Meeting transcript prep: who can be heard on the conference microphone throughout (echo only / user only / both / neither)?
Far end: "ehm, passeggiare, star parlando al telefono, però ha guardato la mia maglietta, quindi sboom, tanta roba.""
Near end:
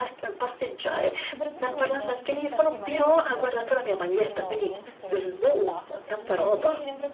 both